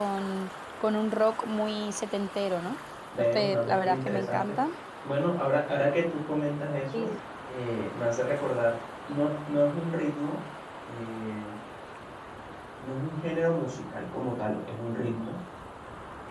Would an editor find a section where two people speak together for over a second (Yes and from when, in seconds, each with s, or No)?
Yes, from 3.2 s